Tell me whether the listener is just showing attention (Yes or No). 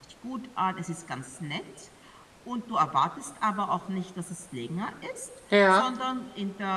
Yes